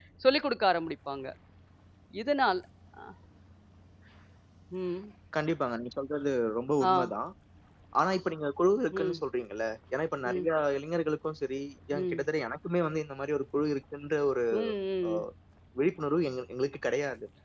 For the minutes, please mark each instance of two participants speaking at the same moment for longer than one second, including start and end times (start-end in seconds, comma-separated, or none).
none